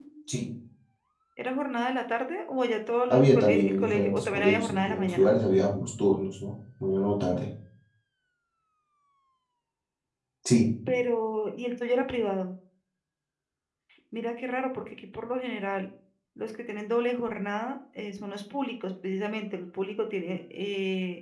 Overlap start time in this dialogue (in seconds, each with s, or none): 3.1 s